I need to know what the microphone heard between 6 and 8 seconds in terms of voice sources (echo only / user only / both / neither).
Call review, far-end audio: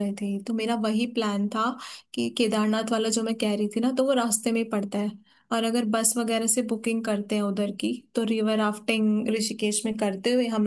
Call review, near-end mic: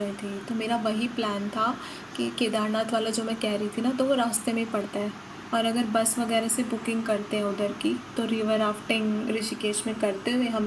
echo only